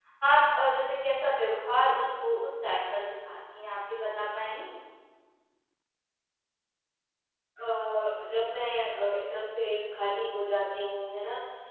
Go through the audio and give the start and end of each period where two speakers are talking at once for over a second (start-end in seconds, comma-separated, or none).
none